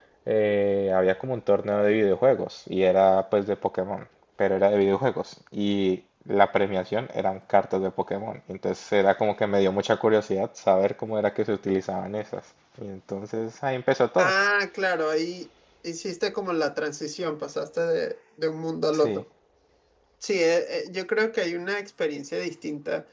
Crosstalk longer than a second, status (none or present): none